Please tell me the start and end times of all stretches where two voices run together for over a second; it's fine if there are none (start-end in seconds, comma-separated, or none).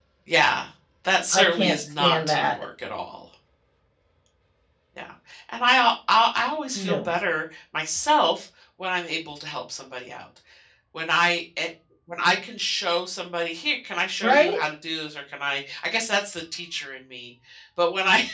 1.3-2.6